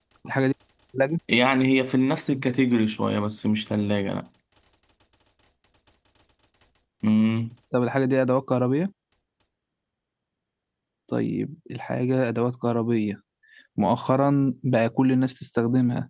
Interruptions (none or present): none